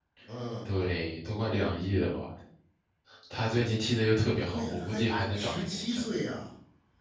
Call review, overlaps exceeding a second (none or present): present